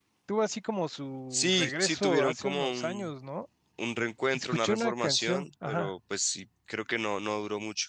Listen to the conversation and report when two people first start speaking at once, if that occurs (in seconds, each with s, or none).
1.3 s